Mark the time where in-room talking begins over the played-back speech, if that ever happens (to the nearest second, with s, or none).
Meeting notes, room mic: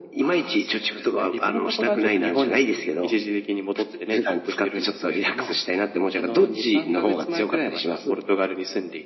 none